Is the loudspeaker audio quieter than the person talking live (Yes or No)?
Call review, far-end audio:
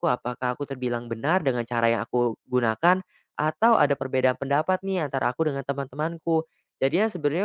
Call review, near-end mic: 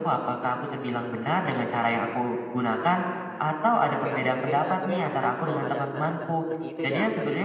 No